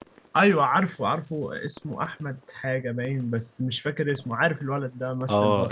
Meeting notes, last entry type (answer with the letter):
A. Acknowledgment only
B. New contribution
B